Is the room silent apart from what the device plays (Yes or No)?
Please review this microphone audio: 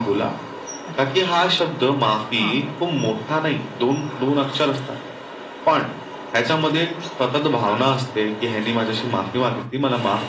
No